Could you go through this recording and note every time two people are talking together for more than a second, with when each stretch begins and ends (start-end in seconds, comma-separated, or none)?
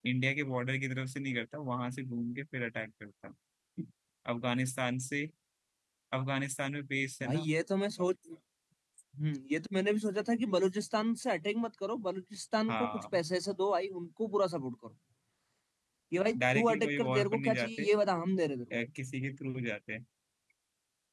16.5-17.9